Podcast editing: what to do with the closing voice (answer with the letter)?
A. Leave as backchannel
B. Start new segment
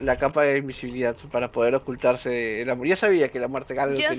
B